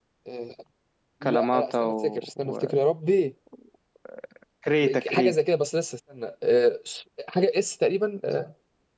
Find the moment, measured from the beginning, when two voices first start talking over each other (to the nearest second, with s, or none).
1 s